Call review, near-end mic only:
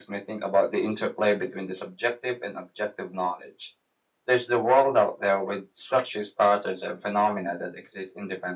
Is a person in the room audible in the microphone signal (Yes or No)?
No